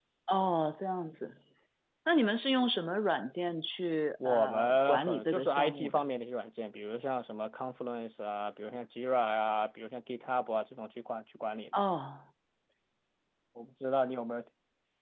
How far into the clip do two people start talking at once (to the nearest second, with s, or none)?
4 s